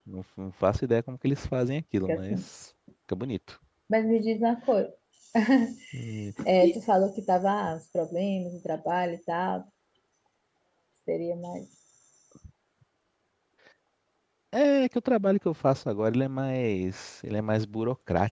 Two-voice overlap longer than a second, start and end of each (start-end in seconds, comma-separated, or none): none